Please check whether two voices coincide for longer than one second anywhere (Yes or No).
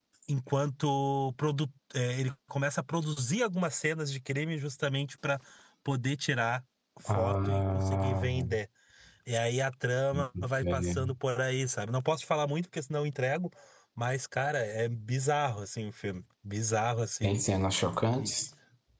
Yes